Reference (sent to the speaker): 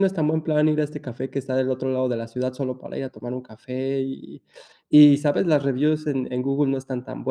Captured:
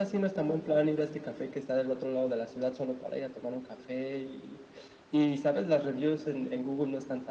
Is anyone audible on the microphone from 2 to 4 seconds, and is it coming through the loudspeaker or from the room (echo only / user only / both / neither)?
echo only